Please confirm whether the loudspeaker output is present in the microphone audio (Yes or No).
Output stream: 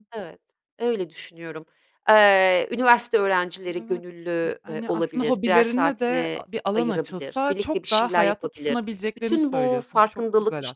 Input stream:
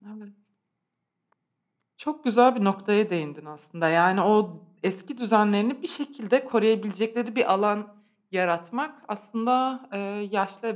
No